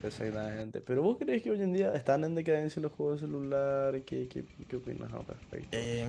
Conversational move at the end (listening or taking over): taking over